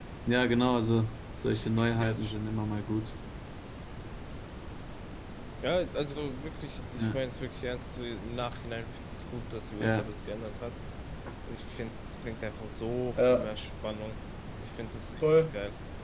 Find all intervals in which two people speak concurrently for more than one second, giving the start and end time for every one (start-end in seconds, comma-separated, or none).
none